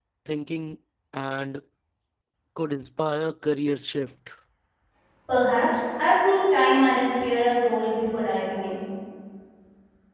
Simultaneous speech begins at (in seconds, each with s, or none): none